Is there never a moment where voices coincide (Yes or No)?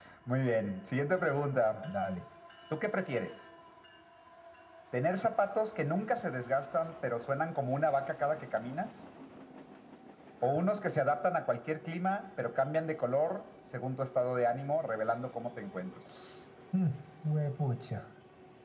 Yes